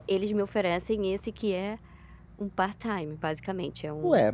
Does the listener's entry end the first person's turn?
Yes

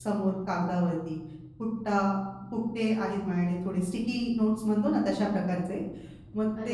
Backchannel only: Yes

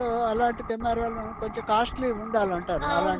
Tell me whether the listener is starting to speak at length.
Yes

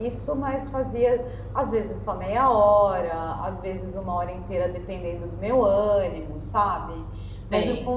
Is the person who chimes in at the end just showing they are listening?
Yes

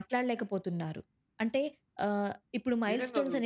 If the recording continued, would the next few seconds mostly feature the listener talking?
Yes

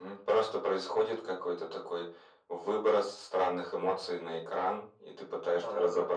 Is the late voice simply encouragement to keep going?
Yes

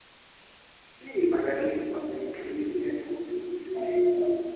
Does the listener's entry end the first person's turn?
No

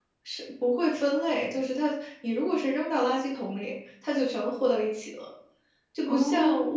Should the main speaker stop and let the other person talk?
No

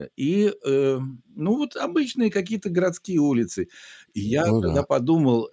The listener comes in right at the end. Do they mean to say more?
No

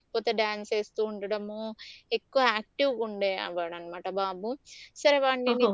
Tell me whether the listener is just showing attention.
Yes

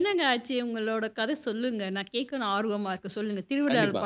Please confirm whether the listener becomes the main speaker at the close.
Yes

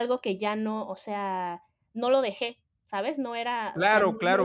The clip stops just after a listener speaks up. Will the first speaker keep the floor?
No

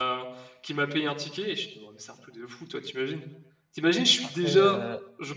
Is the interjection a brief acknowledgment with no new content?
Yes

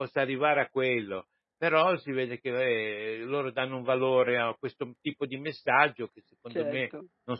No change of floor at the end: Yes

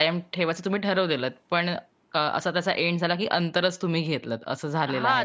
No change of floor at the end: No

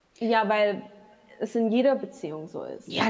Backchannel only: No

